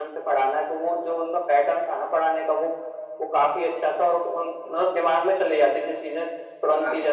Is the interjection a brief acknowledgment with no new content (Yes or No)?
No